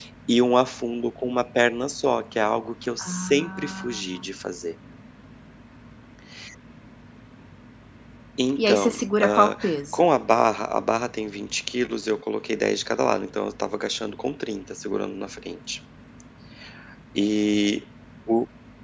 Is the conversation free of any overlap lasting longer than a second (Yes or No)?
No